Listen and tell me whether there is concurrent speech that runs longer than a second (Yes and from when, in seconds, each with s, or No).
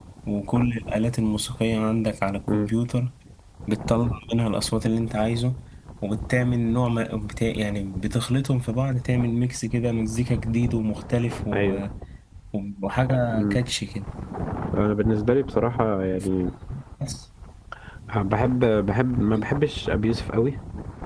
No